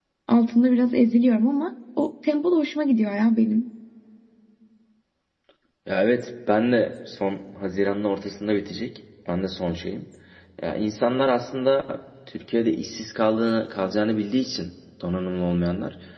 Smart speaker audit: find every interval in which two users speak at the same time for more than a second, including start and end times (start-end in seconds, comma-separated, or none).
none